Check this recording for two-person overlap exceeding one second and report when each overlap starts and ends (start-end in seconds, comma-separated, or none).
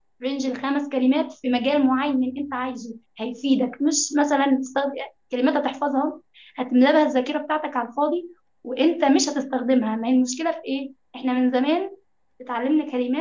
none